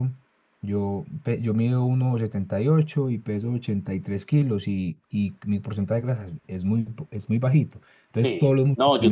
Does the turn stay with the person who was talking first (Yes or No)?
No